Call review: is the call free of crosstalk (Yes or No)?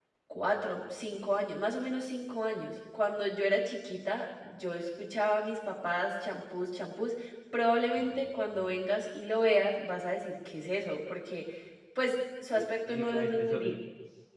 No